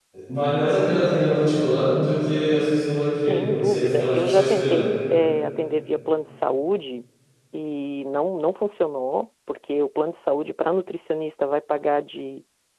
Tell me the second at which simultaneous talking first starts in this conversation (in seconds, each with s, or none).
3.3 s